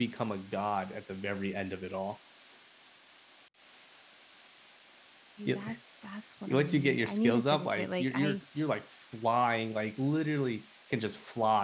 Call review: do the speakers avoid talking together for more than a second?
No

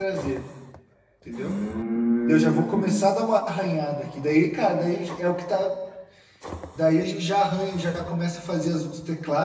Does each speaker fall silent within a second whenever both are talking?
No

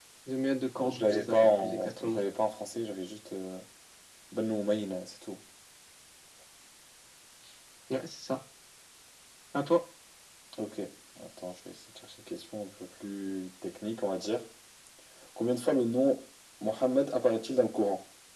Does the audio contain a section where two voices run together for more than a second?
Yes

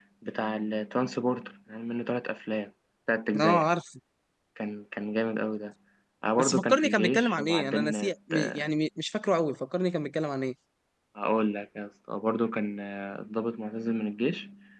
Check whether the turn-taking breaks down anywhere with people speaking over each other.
Yes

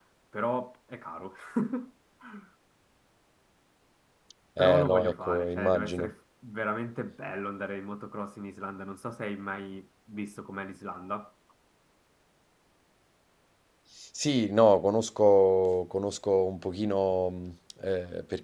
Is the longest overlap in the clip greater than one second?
Yes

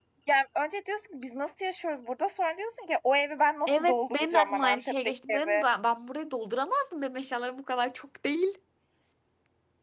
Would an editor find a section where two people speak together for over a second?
Yes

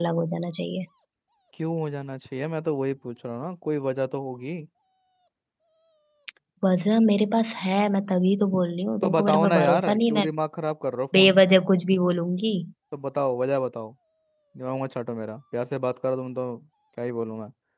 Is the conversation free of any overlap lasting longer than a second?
No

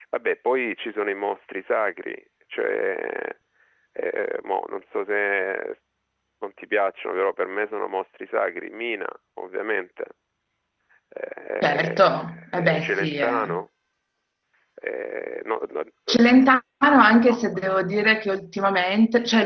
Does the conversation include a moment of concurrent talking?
Yes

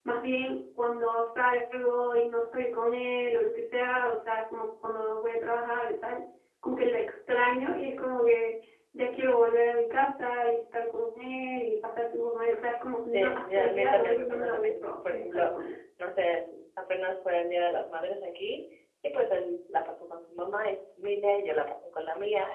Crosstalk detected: Yes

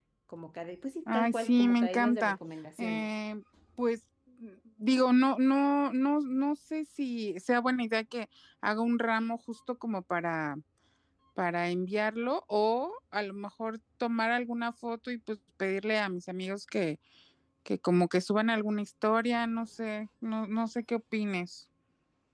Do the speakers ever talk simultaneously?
Yes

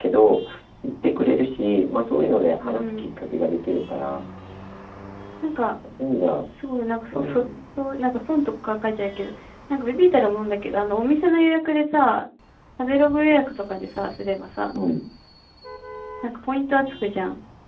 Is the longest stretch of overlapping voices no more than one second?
Yes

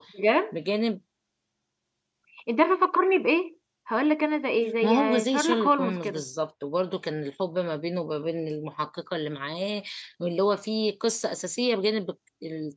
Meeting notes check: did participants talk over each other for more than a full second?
Yes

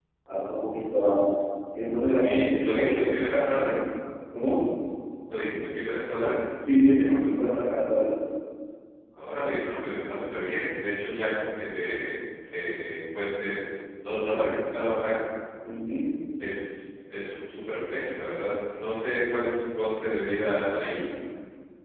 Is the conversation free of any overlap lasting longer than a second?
No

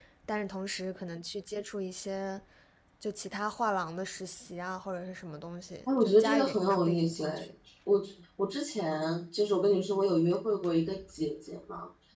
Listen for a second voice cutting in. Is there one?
Yes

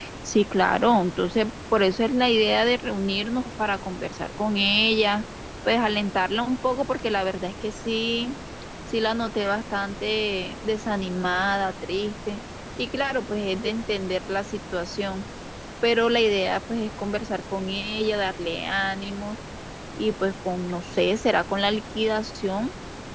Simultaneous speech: No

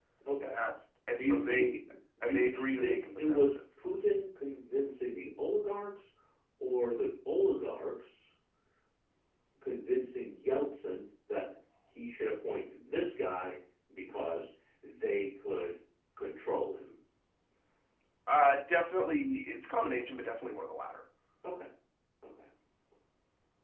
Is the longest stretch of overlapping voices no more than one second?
No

